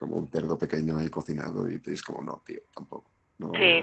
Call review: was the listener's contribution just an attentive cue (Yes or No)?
No